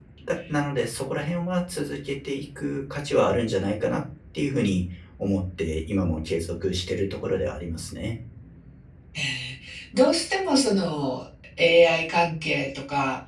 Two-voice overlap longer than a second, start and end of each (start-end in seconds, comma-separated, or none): none